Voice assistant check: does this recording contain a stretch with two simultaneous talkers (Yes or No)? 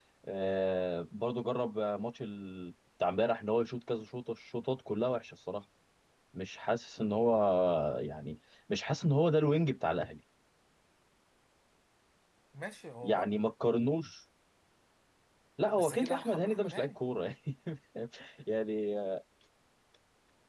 Yes